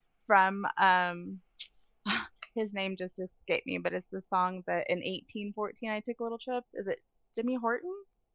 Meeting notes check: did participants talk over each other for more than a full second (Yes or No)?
No